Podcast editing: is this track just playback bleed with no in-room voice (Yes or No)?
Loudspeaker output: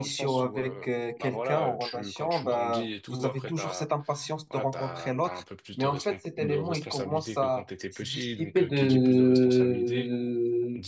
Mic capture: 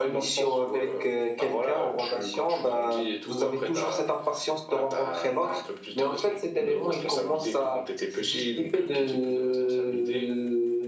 Yes